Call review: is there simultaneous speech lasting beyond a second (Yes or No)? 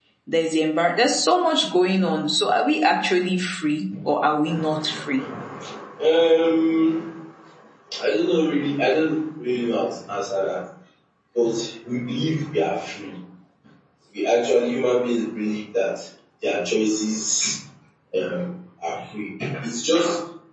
No